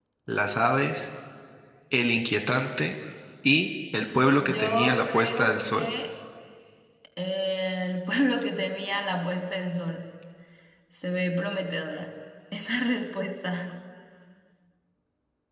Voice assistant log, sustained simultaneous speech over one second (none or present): present